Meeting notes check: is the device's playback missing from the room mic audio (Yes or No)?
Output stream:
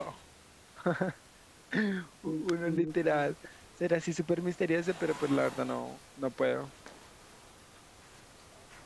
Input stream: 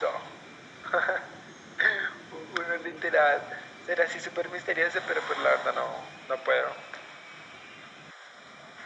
No